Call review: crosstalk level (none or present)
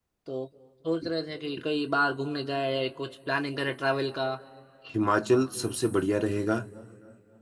none